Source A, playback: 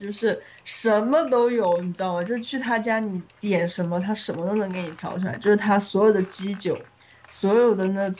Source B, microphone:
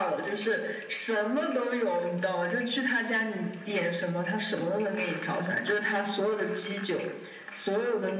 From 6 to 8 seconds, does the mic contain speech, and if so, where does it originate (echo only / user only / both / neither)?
echo only